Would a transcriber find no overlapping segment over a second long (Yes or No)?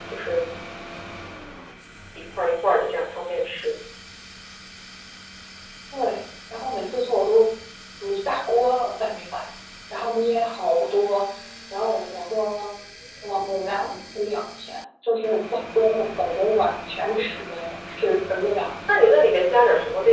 Yes